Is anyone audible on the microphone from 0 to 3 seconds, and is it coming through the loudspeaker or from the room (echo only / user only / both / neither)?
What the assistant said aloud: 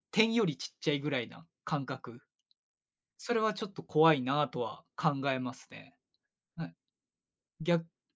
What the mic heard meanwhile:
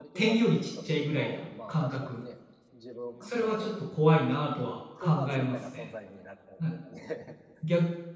both